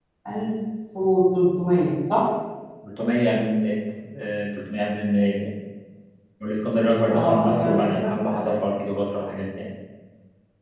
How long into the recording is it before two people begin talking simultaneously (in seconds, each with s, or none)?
7.1 s